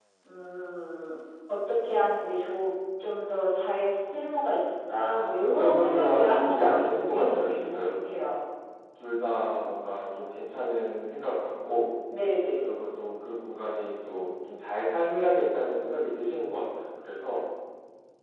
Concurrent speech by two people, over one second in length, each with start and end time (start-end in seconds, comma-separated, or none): 5.1-8.1